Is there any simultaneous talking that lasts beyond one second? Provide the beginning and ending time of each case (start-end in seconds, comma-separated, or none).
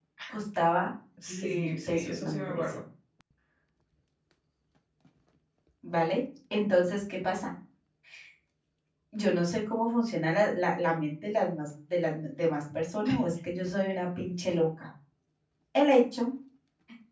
1.3-2.8